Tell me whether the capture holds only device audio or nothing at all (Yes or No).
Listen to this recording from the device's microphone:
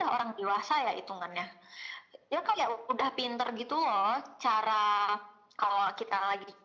Yes